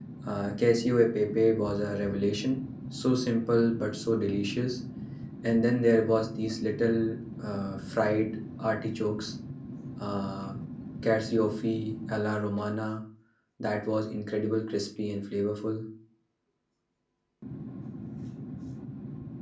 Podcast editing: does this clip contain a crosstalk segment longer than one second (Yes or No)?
No